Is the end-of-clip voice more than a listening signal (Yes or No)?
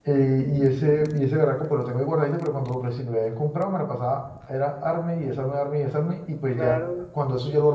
No